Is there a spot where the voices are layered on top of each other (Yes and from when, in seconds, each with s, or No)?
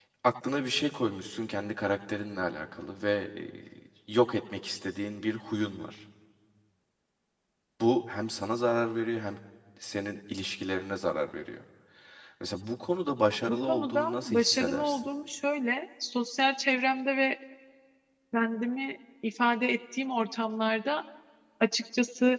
Yes, from 13.5 s